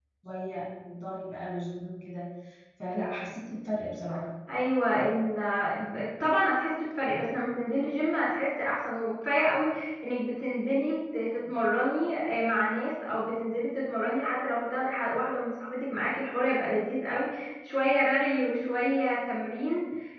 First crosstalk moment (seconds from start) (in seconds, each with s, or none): none